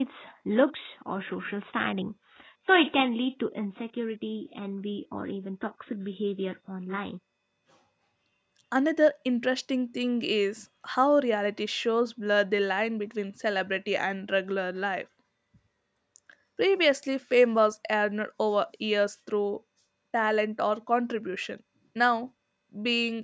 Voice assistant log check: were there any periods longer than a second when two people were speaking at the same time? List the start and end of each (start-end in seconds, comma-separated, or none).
none